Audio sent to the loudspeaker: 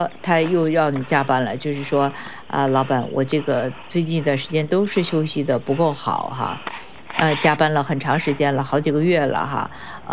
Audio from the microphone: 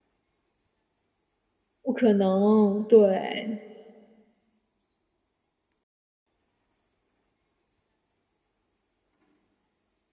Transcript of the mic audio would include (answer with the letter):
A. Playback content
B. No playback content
B